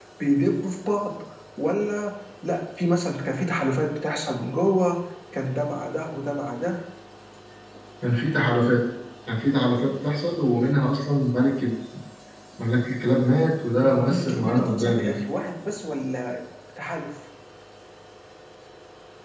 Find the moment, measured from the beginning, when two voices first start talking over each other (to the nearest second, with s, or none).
14 s